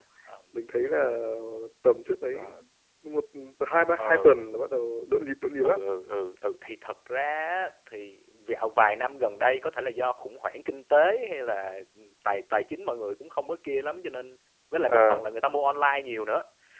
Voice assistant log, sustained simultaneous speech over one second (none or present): none